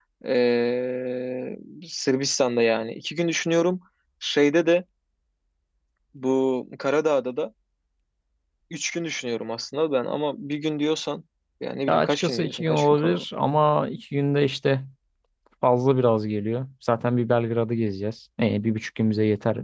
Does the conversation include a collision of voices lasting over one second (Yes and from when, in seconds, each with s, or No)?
Yes, from 11.9 s